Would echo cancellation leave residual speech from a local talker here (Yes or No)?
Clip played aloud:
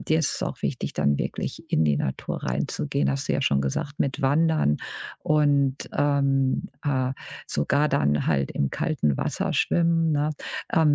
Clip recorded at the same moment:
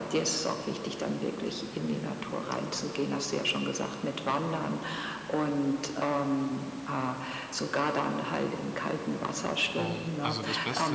Yes